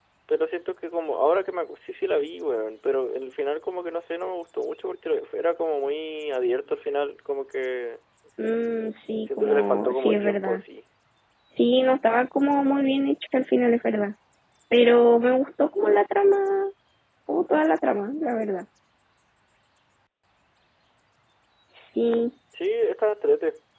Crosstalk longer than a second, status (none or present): present